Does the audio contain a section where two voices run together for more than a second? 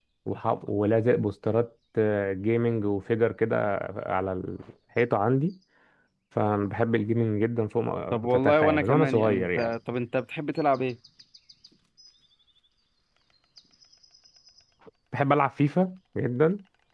Yes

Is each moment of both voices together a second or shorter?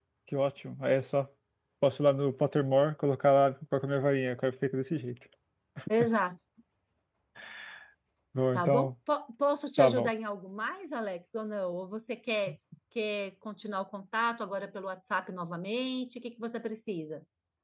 Yes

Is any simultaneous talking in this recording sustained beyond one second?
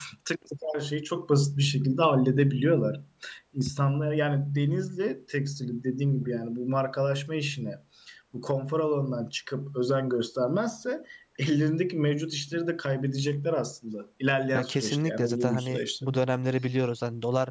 Yes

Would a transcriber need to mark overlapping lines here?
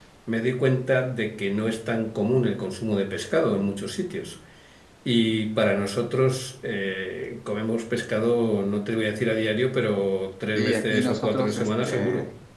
Yes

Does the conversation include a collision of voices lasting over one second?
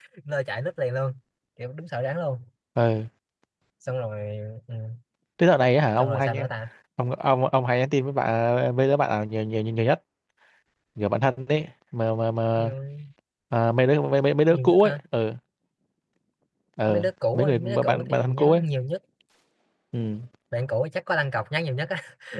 Yes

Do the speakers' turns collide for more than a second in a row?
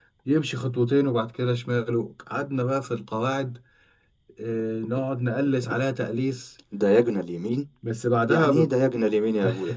No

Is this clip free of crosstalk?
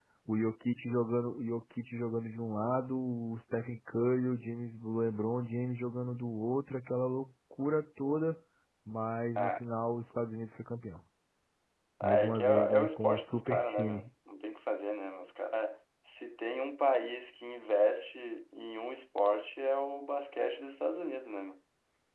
No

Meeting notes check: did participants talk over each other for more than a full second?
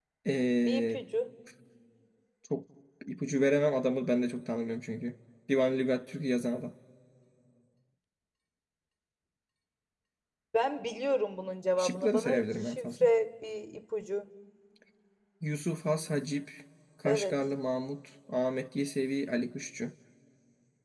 Yes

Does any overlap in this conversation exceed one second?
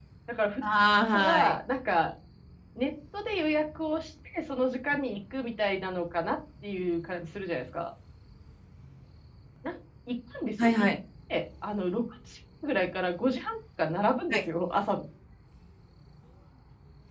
No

